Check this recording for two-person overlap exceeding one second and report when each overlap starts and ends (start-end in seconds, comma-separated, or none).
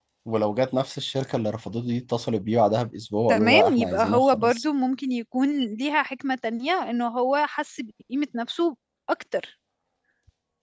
3.3-4.6